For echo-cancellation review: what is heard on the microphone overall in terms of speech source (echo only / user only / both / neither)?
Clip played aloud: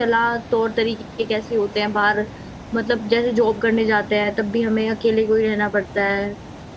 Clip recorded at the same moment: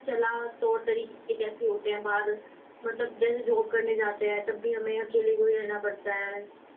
echo only